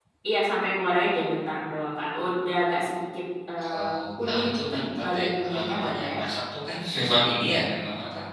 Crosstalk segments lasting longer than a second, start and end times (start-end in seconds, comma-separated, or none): 4.2-6.1